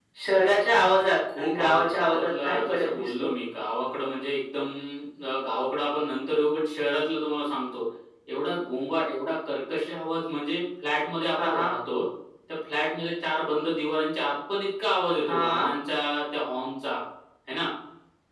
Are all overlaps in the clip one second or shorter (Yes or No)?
No